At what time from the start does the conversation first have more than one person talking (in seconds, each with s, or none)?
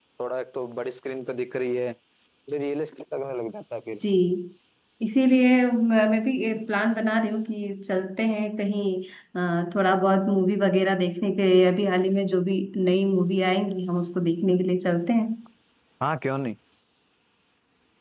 none